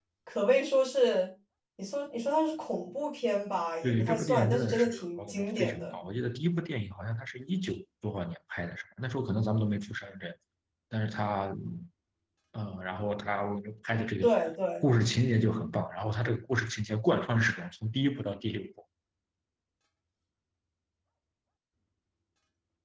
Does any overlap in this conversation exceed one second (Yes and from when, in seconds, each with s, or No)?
Yes, from 3.8 s